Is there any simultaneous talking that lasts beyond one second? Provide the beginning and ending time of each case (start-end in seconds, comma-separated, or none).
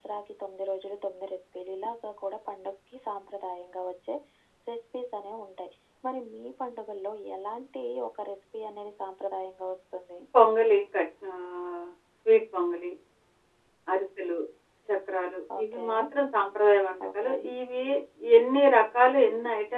none